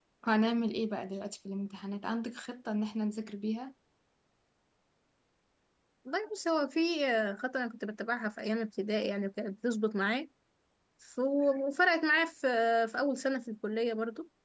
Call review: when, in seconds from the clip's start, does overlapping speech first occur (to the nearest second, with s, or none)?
none